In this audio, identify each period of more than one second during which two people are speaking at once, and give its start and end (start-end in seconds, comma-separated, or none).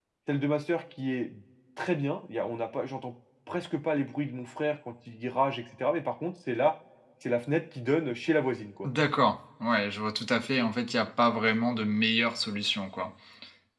none